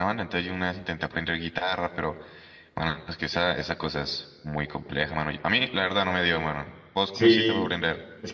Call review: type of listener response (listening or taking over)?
taking over